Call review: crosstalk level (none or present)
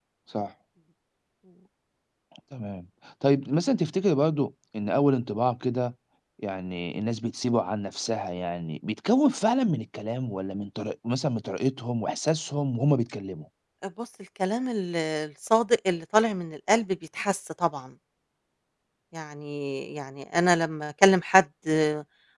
none